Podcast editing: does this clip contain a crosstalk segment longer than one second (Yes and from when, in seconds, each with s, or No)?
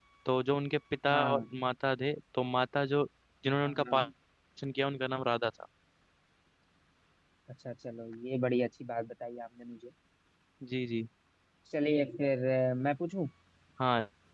No